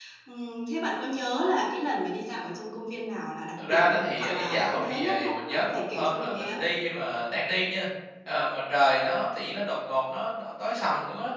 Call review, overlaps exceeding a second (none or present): present